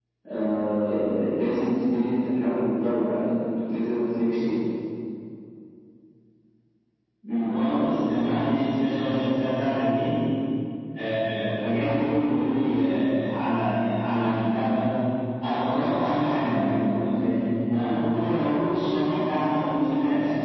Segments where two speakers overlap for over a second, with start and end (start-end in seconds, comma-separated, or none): none